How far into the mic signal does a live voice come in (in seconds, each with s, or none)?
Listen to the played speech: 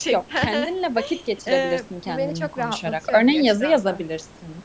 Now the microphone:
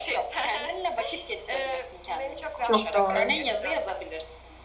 2.6 s